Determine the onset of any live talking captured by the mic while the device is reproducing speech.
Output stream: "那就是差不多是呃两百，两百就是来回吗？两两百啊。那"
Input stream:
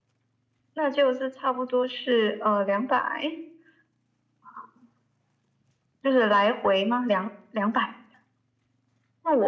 none

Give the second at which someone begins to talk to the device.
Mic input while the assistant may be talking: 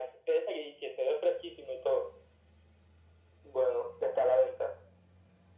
none

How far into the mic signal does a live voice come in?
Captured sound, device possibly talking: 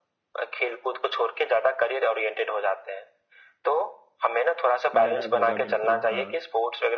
4.9 s

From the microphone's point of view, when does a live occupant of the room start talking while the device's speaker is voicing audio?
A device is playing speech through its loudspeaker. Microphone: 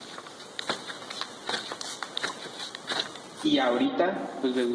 3.4 s

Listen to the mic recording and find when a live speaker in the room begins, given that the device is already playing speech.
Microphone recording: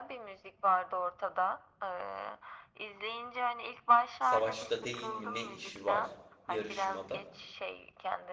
4.2 s

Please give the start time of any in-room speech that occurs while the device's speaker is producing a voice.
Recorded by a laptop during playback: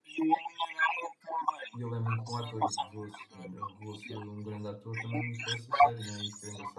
1.7 s

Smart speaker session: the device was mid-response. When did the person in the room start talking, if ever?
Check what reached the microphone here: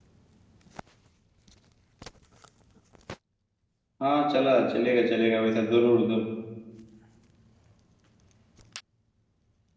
4.0 s

